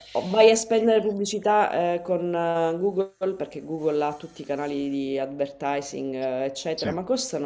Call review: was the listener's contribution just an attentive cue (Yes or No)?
Yes